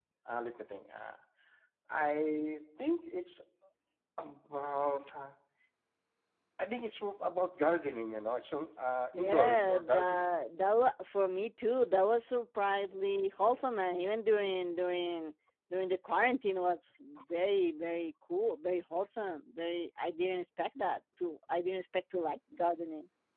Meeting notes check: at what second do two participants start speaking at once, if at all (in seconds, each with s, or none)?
9.1 s